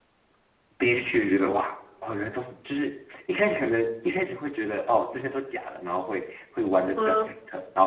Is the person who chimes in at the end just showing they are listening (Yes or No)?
Yes